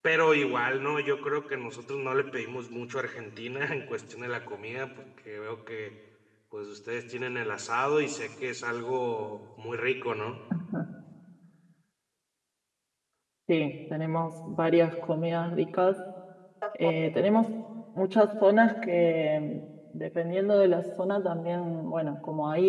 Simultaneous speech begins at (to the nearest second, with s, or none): none